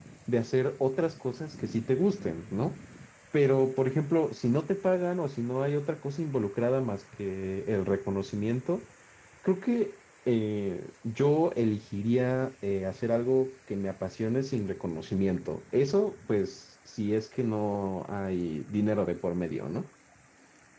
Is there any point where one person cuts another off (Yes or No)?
No